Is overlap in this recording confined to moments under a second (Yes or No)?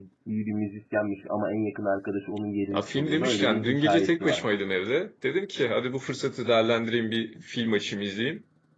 No